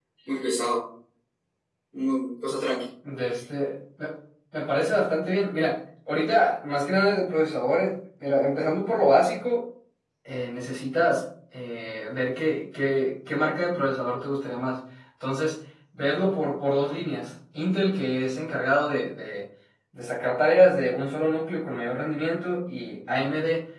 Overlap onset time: none

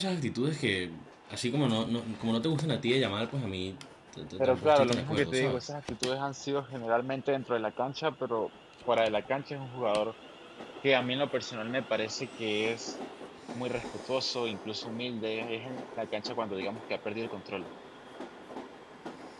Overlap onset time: 4.4 s

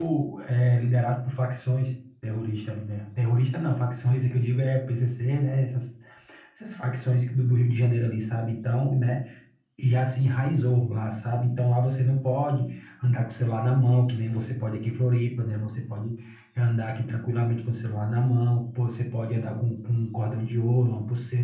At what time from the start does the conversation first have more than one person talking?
none

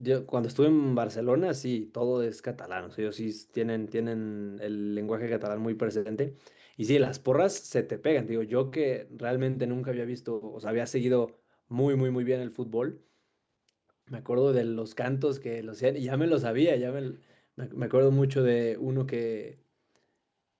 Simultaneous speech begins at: none

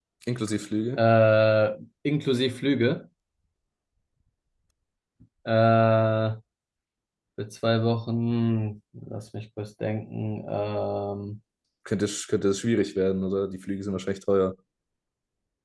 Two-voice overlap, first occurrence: none

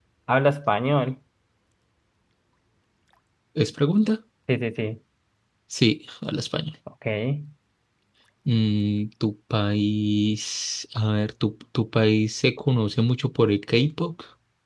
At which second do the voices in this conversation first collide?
none

